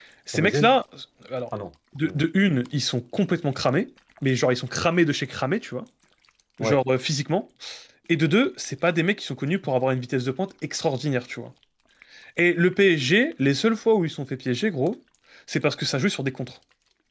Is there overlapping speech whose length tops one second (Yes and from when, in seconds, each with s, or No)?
No